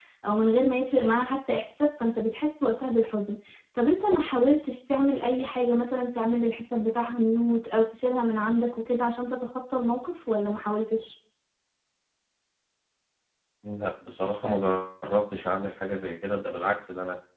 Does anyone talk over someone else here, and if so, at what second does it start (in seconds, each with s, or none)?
none